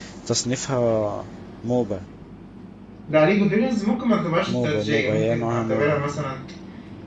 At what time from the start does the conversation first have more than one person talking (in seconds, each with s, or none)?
4.5 s